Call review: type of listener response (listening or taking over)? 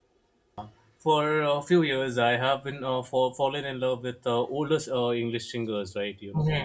taking over